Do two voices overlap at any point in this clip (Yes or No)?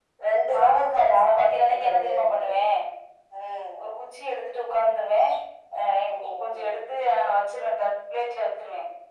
Yes